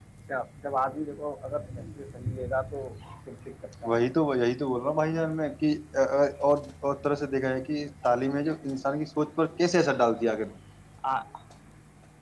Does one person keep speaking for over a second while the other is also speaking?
No

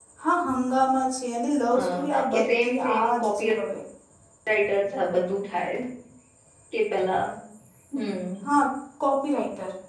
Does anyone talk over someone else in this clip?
Yes, from 1.7 s

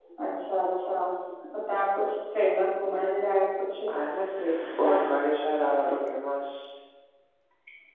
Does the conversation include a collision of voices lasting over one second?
No

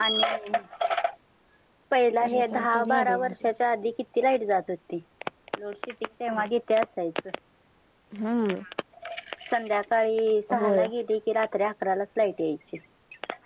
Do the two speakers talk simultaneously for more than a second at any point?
Yes, from 2.2 s

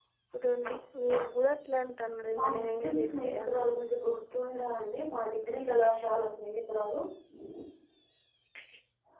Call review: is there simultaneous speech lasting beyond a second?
Yes, from 2.3 s

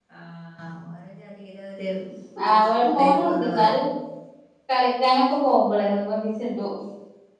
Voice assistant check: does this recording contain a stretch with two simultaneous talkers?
Yes, from 2.5 s

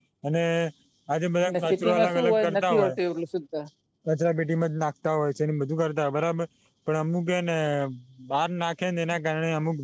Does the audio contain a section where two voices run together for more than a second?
Yes, from 1.7 s

